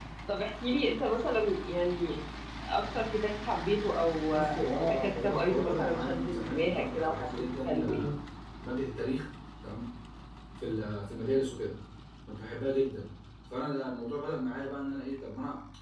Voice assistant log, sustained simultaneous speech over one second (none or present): present